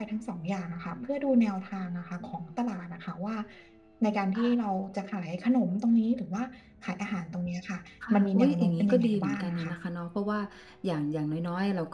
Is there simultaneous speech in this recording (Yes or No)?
Yes